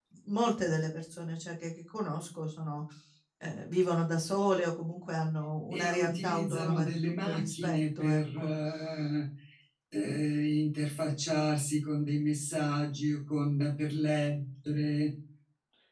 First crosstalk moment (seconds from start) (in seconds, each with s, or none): 5.7 s